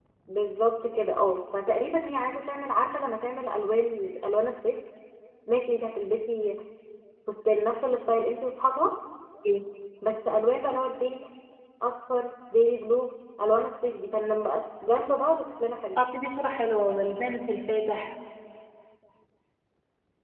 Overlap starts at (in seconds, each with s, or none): none